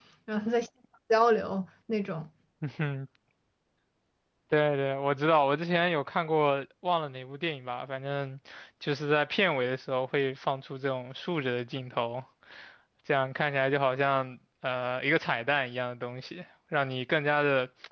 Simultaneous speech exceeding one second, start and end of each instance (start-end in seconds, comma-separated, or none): none